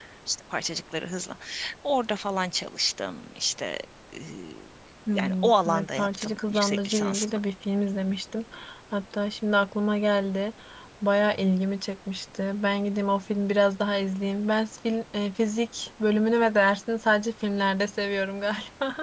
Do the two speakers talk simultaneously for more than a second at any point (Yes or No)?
Yes